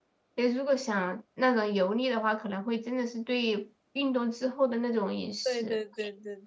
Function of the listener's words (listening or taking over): taking over